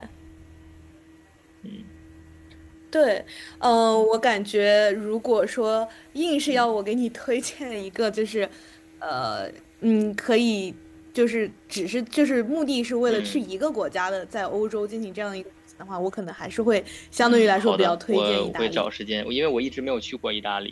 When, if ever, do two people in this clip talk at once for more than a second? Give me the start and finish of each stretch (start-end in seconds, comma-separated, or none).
17.2-18.9